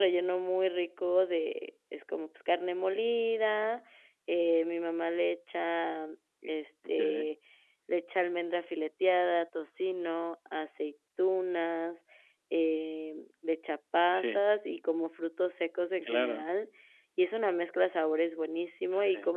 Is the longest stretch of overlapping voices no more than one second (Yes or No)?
Yes